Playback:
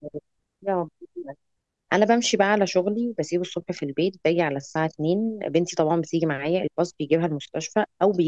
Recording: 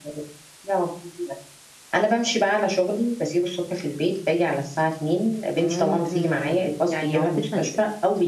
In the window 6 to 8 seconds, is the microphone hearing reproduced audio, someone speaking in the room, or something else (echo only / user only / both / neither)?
both